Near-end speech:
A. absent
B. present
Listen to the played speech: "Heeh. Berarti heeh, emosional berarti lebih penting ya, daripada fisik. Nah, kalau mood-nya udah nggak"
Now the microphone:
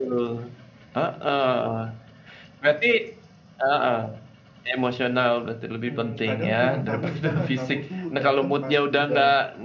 B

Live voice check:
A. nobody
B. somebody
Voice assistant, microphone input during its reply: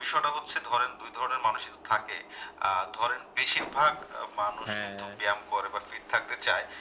B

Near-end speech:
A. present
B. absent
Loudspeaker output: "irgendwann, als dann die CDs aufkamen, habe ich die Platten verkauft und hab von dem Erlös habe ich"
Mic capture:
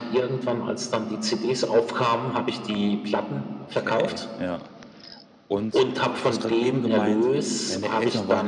A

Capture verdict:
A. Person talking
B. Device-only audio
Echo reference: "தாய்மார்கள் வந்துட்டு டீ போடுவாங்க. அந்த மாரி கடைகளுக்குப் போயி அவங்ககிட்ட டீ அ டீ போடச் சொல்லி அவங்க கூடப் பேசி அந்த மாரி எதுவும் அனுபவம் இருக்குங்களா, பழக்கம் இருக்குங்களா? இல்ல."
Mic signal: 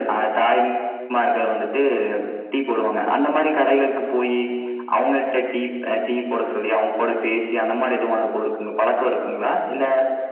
B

